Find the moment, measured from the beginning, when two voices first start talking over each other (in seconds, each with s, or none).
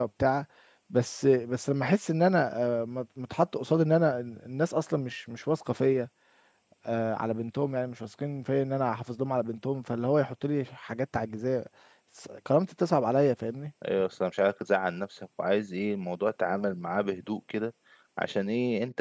none